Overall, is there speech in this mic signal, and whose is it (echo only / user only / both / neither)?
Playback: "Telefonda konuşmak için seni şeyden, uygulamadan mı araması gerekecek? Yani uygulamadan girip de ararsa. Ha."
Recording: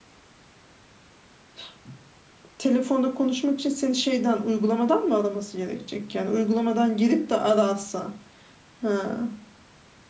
echo only